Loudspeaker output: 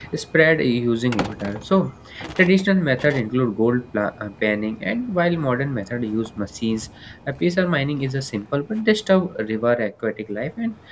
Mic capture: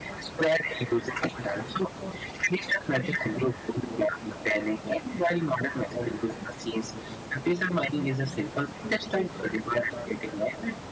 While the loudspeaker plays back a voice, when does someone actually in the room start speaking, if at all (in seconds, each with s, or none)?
none